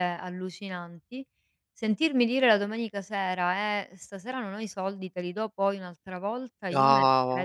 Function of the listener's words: listening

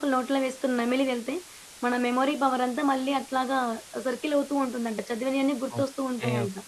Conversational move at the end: taking over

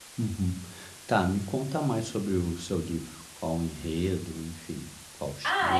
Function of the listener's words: taking over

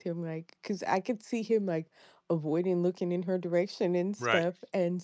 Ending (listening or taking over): listening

